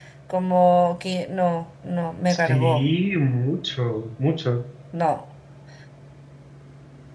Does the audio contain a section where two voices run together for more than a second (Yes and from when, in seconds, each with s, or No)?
No